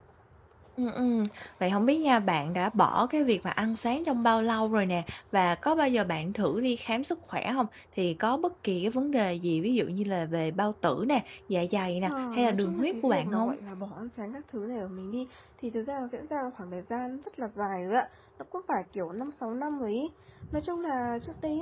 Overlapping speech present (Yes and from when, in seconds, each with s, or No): Yes, from 12.1 s